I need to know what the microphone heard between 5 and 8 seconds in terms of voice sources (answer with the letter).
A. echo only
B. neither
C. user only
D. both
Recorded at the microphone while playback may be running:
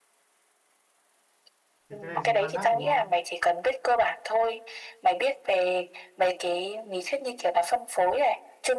A